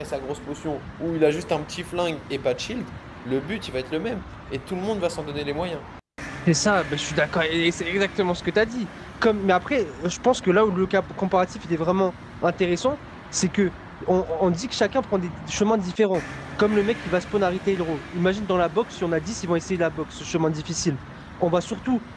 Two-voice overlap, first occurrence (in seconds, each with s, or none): none